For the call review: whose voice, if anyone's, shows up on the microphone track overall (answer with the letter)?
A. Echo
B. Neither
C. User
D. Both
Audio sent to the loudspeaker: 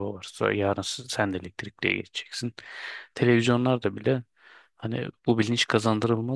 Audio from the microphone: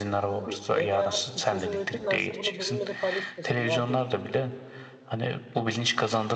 D